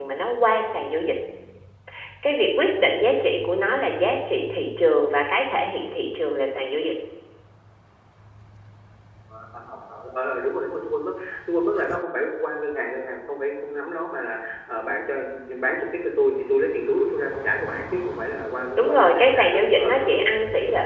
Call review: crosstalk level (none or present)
present